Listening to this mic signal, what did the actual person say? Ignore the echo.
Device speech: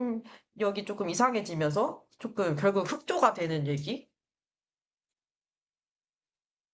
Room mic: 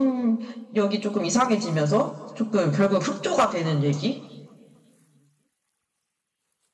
none

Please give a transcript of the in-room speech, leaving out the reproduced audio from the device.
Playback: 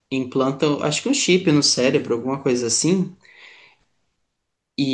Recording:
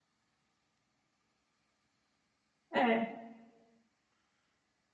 É,

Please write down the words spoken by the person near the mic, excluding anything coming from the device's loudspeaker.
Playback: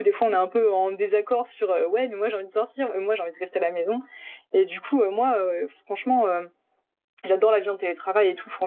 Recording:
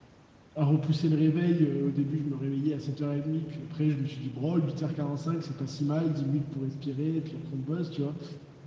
à repousser le réveil. Euh, au début, je me réveillais à 7h30, puis après, je me suis dit, bon, huit heures quarante cinq c'est pas si mal, 10 minutes pour respirer, puis après, on bosse, tu vois.

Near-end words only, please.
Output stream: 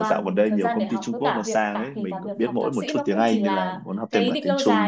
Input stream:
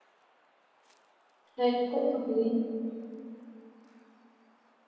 thấy cũng hợp lý

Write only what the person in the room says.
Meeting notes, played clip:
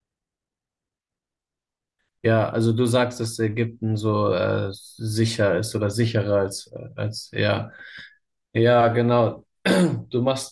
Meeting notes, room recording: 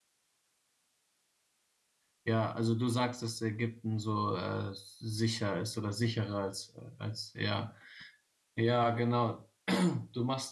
none

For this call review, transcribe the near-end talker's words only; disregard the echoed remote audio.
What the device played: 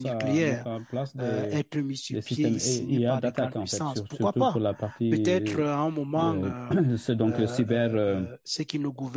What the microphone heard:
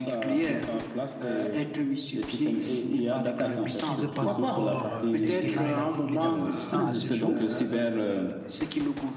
ne maîtrise pas encore euh, les tenants et la bou- et les aboutissants à ce jour.

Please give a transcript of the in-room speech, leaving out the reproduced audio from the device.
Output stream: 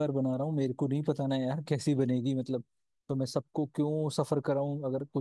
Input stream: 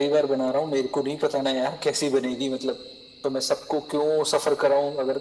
none

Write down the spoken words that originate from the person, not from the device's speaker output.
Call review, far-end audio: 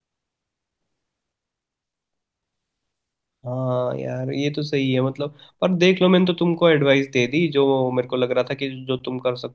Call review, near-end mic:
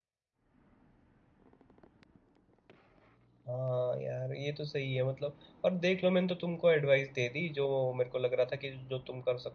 none

